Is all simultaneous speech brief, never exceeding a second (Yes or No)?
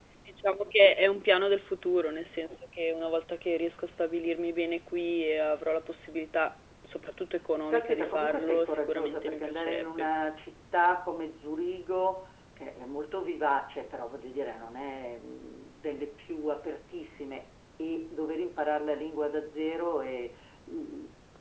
No